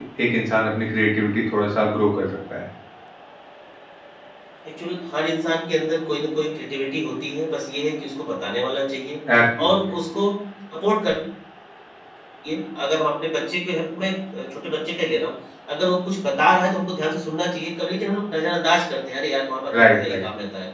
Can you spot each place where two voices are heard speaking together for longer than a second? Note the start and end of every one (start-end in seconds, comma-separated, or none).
none